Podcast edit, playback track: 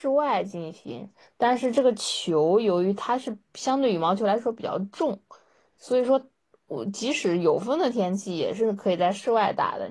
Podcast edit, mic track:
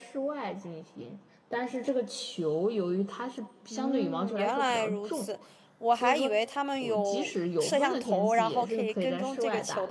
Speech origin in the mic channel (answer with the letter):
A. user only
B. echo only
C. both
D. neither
C